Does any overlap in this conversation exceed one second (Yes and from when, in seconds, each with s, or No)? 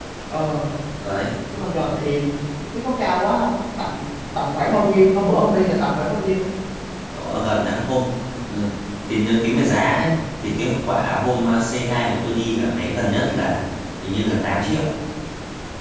No